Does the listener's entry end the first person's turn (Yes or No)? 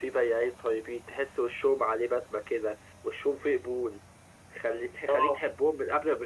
No